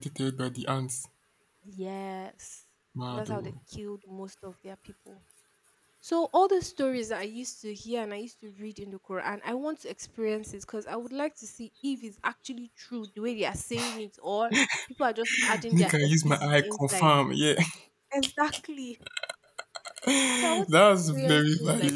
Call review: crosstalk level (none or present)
present